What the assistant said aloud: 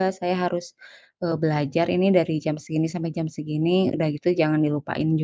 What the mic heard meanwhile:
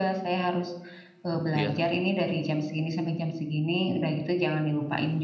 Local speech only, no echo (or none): Iya.